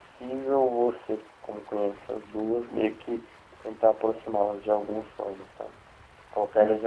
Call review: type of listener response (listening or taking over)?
listening